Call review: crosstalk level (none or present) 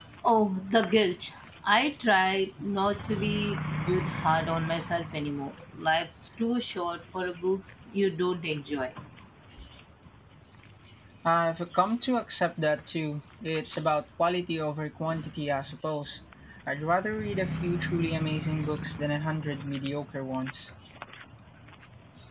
none